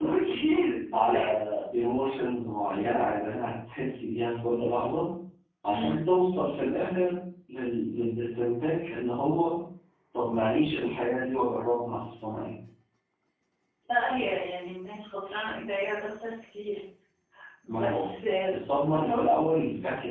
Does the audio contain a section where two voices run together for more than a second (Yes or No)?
No